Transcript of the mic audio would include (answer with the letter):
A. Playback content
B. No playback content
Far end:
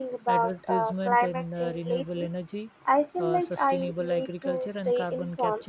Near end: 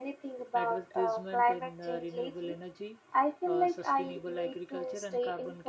A